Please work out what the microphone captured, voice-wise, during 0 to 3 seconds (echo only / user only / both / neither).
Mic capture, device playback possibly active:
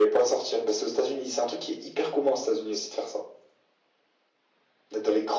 echo only